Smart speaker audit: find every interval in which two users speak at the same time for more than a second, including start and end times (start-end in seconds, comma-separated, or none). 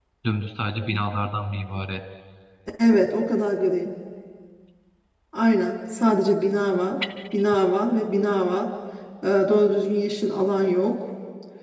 none